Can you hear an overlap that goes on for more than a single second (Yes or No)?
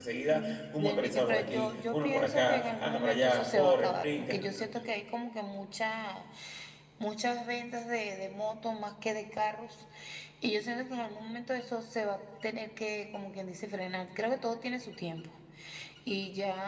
Yes